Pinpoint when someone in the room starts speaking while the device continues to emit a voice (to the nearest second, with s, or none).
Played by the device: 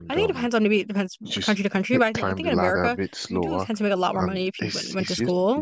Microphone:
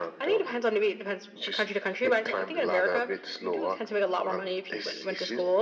none